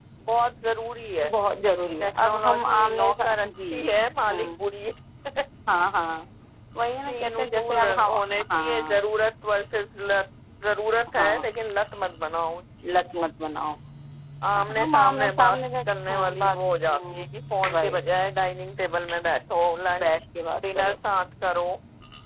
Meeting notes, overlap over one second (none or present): present